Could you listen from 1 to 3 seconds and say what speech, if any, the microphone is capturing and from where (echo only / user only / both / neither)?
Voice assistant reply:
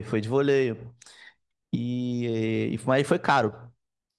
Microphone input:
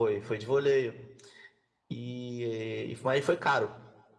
echo only